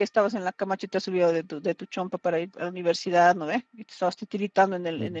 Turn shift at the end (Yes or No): No